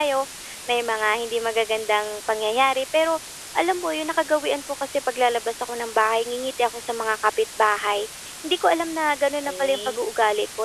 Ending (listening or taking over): listening